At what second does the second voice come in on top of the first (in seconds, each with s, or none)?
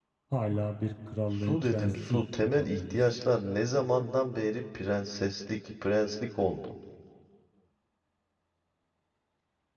1.3 s